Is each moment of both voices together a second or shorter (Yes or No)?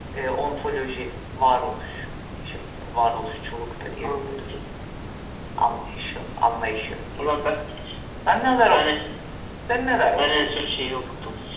Yes